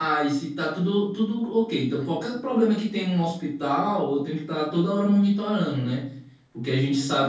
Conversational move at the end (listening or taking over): listening